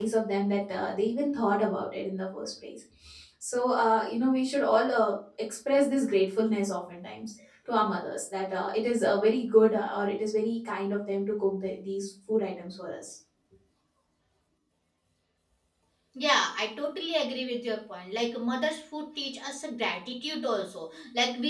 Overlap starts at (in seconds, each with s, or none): none